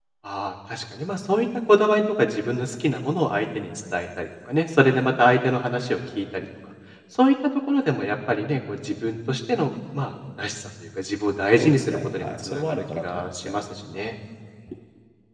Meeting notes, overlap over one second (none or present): present